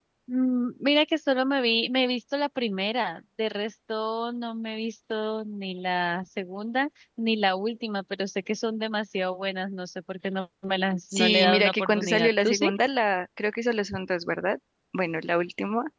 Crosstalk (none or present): present